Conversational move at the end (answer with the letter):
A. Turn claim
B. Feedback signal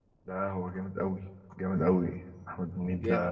A